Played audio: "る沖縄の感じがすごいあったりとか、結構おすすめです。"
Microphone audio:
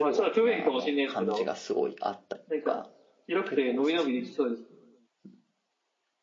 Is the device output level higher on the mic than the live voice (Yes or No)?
No